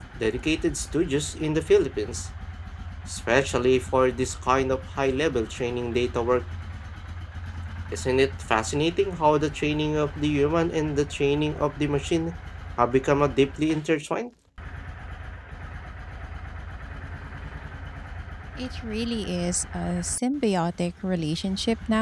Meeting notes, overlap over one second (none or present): none